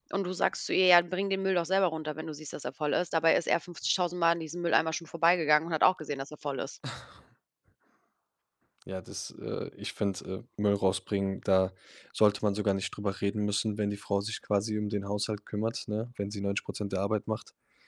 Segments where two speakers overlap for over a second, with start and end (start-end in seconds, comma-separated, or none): none